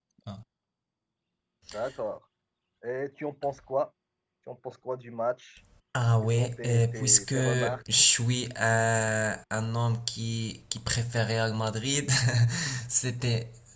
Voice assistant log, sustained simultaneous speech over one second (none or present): present